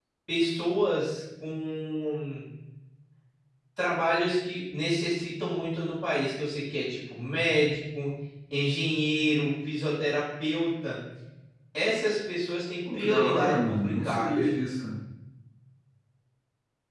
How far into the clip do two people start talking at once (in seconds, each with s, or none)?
12.8 s